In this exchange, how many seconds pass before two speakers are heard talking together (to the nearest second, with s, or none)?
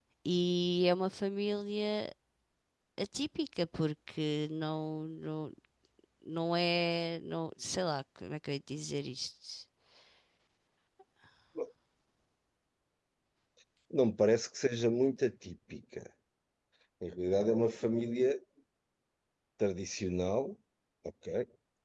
none